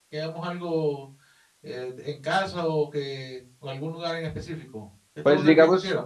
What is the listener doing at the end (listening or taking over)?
taking over